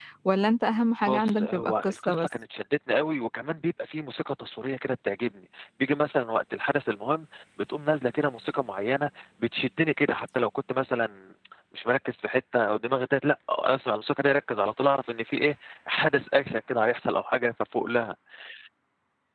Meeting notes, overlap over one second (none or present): present